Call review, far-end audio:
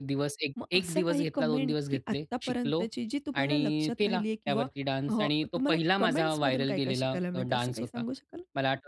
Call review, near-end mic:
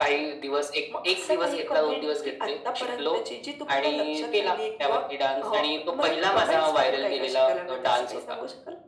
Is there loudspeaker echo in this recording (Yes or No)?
Yes